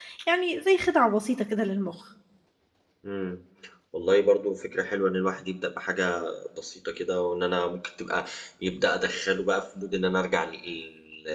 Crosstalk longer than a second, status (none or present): none